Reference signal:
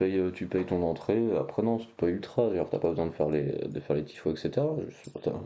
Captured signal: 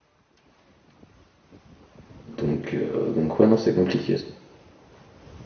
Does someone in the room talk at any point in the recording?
Yes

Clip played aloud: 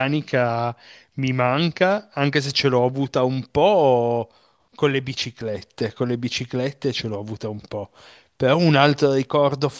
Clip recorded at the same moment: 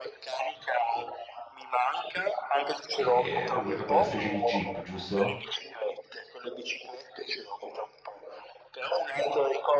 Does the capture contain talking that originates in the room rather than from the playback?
Yes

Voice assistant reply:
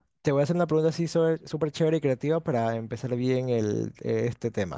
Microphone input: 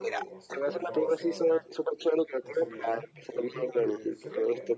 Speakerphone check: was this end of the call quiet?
No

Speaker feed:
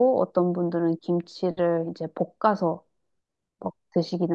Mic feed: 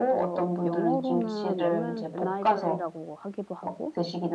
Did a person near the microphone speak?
Yes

